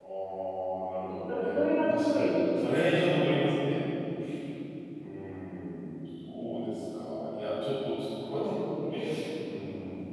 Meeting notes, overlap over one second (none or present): present